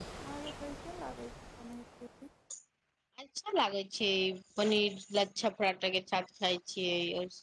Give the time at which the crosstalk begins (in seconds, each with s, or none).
none